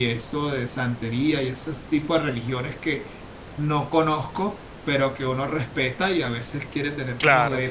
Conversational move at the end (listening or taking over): listening